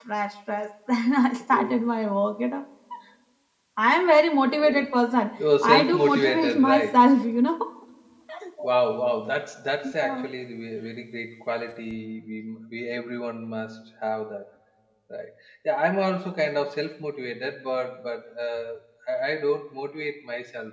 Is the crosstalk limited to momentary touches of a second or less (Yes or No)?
No